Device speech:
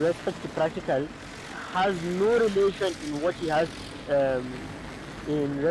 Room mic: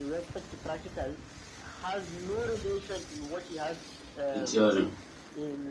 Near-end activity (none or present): present